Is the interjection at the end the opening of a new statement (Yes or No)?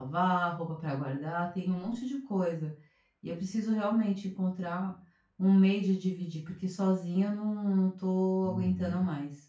Yes